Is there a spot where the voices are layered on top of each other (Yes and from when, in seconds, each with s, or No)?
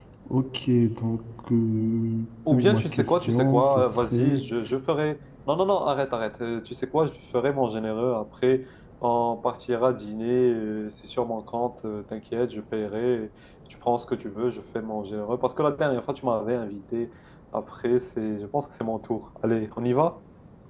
Yes, from 2.5 s